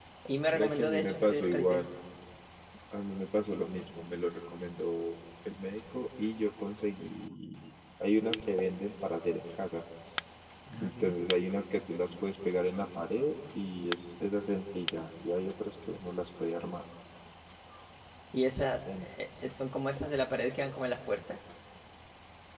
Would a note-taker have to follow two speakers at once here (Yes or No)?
Yes